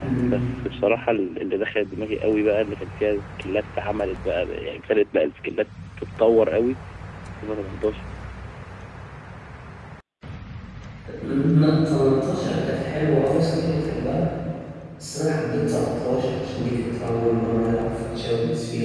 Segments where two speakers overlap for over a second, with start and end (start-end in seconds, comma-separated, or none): none